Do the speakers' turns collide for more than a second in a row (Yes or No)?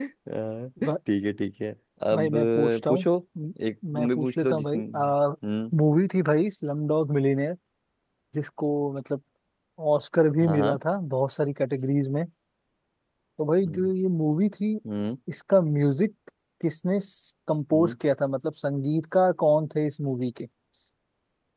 Yes